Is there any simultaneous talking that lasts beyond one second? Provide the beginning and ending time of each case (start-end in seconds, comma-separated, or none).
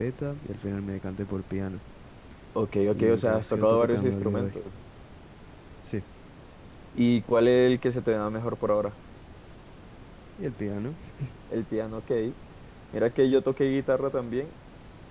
2.9-4.6